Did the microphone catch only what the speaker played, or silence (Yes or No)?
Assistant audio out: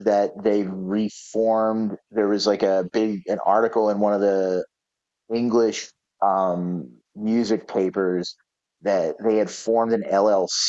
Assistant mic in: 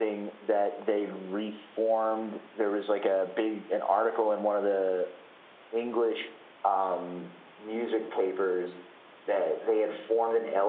Yes